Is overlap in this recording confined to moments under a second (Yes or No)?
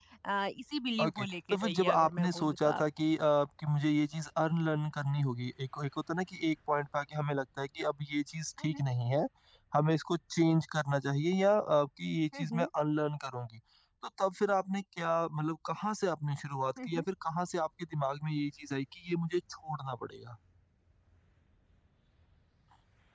No